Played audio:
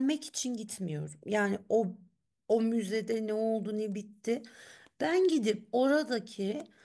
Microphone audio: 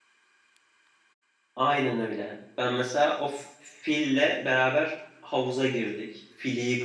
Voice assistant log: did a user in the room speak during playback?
Yes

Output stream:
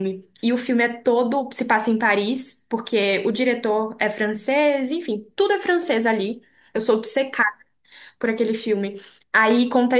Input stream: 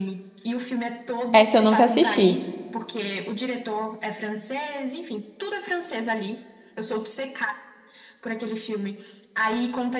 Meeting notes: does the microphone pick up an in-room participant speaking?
Yes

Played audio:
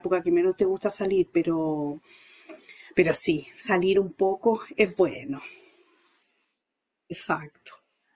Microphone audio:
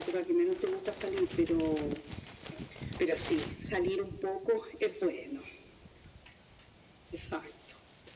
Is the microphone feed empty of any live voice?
Yes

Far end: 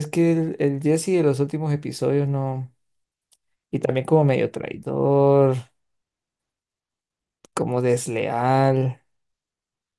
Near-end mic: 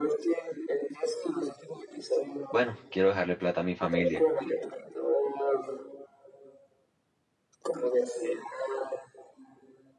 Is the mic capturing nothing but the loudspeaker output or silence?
No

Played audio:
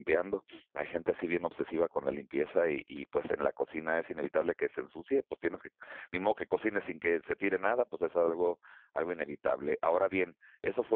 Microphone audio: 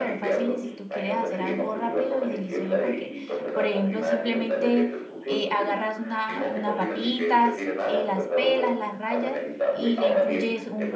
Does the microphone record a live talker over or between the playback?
Yes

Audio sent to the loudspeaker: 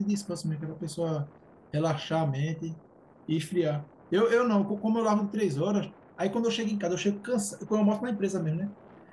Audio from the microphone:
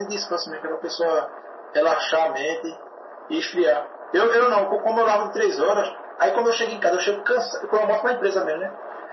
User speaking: No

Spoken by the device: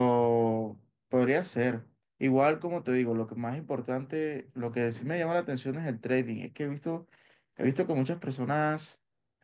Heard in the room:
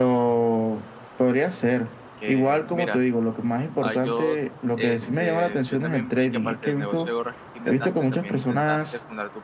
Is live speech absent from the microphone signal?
No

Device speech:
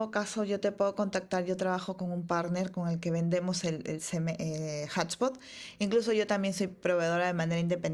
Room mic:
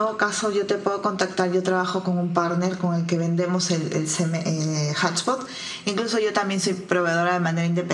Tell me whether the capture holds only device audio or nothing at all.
Yes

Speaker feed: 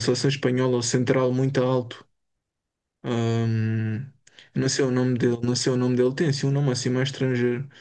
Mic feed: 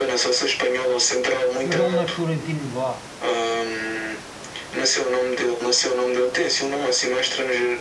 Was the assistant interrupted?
Yes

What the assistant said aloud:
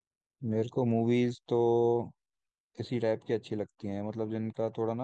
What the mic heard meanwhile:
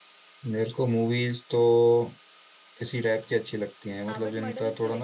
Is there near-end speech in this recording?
Yes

